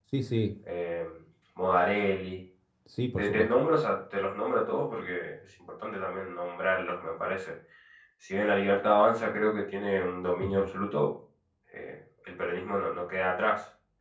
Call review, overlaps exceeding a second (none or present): none